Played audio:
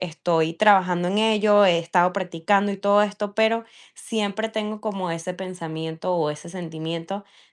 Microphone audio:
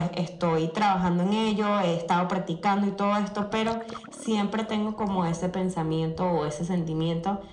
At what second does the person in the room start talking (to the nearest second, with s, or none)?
none